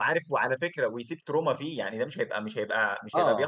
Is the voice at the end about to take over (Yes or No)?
No